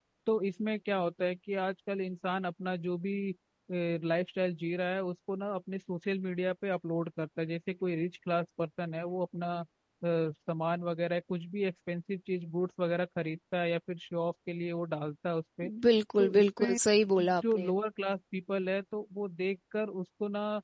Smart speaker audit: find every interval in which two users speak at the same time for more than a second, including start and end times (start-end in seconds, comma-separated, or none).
none